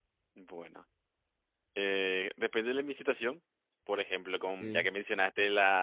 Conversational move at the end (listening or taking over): listening